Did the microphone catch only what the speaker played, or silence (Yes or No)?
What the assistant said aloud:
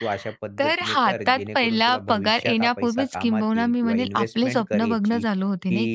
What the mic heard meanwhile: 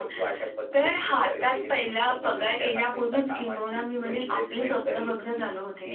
Yes